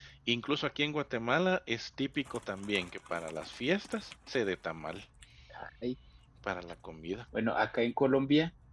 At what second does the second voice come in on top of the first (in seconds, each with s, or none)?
none